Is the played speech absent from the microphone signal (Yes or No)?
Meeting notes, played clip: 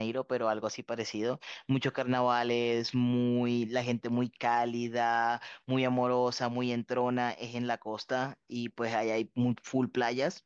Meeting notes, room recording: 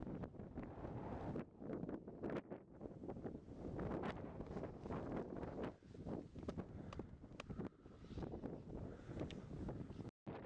Yes